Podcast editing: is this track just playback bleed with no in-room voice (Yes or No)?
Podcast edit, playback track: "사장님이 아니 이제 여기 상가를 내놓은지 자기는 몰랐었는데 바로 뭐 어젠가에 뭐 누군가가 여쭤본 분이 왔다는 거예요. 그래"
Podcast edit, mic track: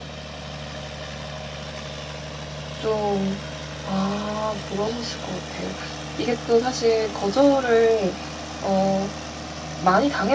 No